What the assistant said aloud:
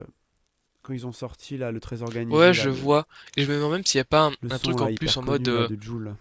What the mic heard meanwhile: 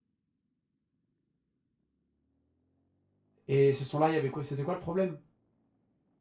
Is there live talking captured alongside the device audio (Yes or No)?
Yes